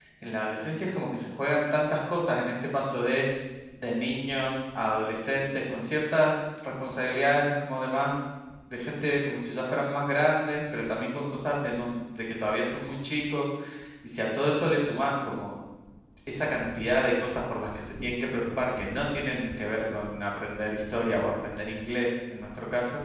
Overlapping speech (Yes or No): No